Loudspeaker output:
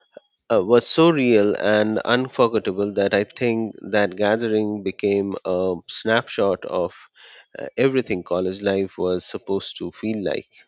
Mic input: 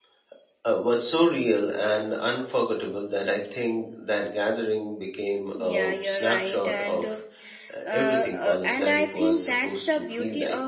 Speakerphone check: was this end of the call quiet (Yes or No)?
No